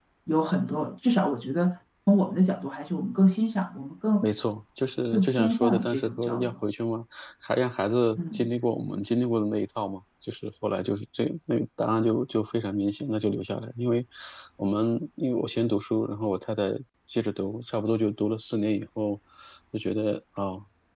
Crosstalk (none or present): present